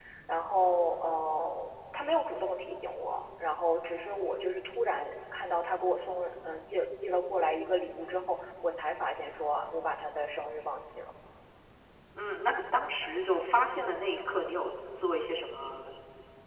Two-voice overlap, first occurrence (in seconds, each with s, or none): none